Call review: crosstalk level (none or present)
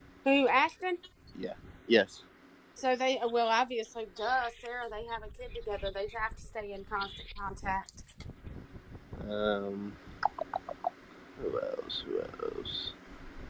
none